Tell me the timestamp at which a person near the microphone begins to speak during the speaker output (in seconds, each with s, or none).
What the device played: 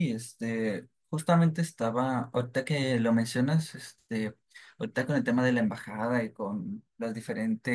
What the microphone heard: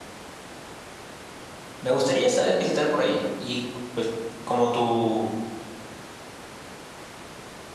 1.8 s